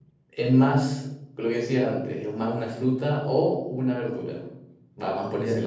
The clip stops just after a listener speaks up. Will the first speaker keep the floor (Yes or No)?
No